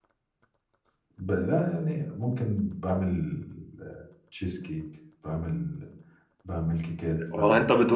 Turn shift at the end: Yes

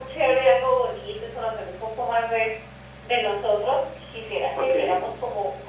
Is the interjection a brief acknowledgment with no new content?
Yes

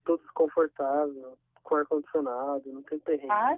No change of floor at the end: No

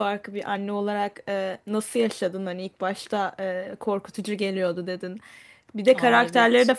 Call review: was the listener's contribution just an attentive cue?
Yes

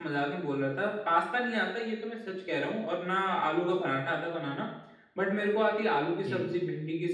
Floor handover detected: No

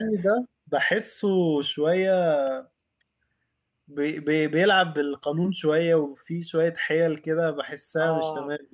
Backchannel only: No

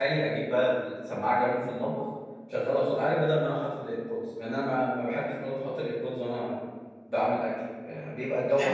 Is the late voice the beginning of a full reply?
No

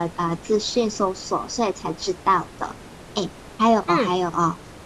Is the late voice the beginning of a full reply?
No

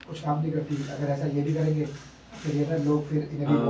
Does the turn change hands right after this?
Yes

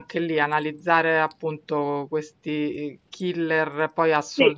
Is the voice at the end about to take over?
No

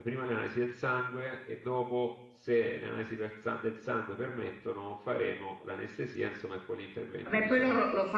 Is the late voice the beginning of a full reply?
Yes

